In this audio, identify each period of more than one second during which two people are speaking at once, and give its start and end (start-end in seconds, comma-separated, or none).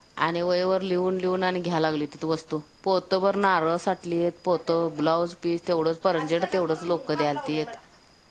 6.1-7.7